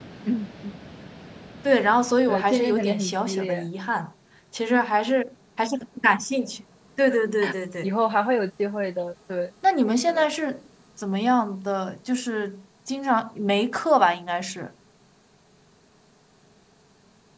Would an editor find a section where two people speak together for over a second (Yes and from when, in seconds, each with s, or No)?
Yes, from 2.3 s